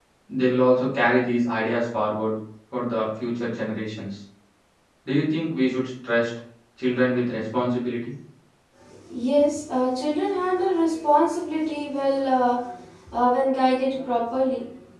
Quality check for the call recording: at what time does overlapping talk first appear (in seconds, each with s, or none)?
none